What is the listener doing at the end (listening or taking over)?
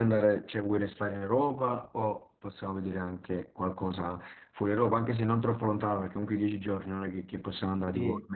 taking over